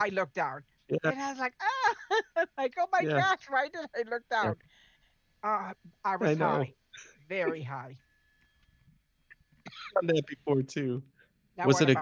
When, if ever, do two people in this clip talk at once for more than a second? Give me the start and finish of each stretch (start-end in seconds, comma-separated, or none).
none